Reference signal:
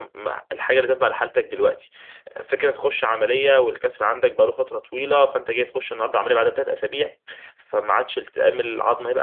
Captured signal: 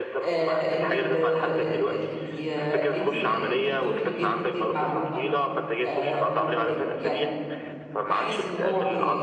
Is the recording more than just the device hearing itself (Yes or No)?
Yes